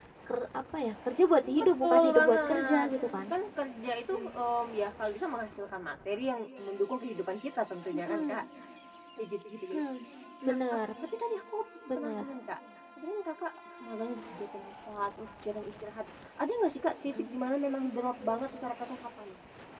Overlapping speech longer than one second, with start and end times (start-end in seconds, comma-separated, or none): 1.6-2.9